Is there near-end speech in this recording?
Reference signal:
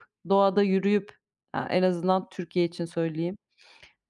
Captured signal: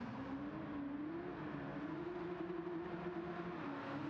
No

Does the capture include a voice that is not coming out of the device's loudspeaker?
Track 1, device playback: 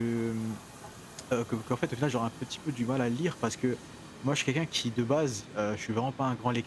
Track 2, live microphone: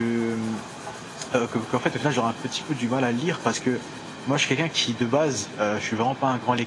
No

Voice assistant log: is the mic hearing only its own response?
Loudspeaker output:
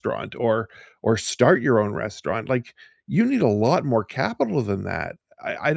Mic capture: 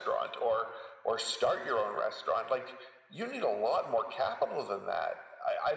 Yes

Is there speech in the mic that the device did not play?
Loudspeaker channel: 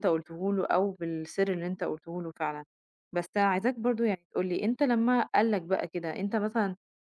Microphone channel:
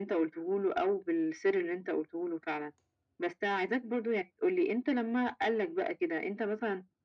No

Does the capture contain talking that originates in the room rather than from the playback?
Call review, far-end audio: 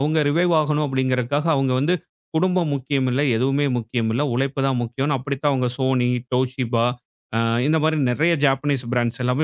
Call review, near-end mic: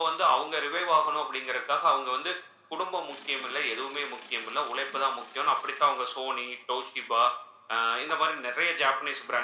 No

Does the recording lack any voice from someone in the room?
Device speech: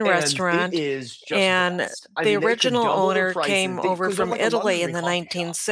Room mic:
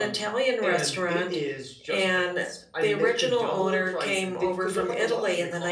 Yes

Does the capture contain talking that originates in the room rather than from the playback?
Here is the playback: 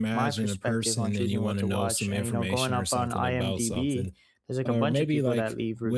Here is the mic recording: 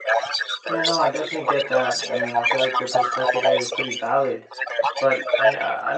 Yes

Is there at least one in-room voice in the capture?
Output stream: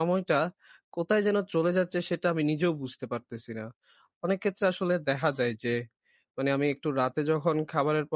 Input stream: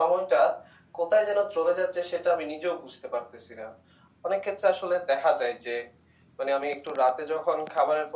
No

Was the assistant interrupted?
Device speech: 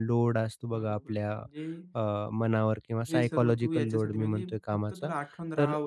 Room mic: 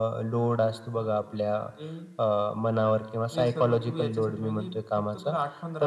No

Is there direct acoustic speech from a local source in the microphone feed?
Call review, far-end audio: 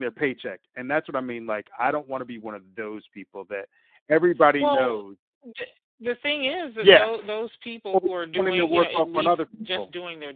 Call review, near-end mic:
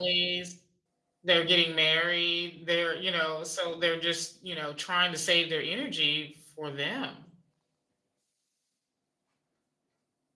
Yes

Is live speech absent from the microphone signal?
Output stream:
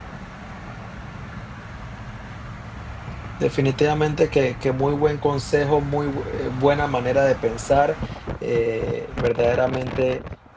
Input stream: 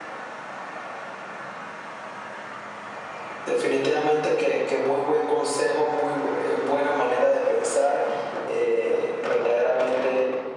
Yes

